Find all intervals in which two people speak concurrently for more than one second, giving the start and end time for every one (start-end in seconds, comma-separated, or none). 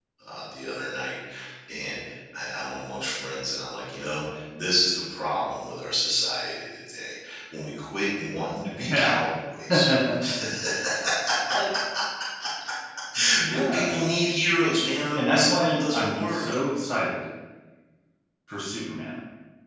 15.2-16.4